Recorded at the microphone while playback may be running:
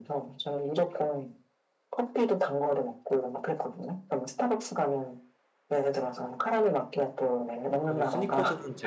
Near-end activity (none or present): present